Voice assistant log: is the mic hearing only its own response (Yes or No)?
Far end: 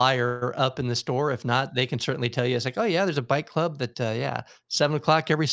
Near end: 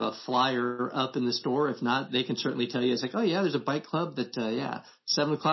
Yes